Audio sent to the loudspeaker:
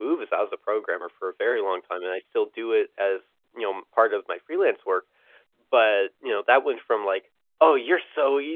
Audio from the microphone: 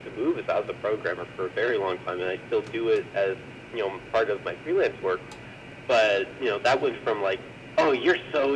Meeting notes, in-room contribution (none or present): none